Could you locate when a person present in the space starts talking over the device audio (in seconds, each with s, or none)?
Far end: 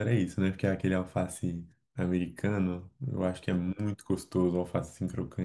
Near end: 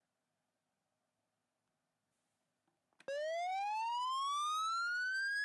none